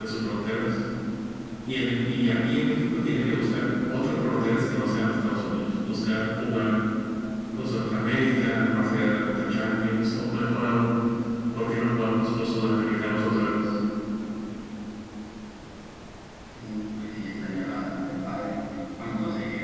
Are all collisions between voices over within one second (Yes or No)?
Yes